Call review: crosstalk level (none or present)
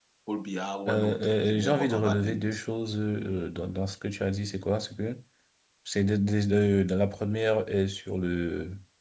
present